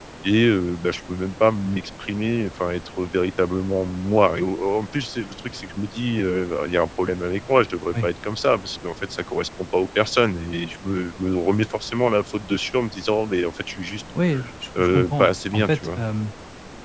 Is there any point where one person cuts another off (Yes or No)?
Yes